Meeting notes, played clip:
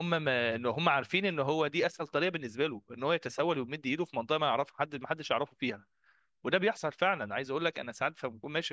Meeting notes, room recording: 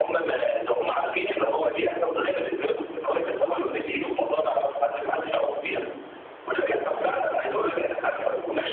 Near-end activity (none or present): none